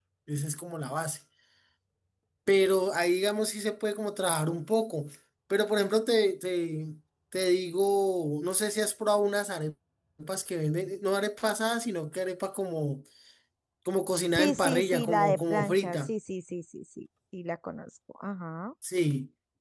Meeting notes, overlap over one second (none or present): present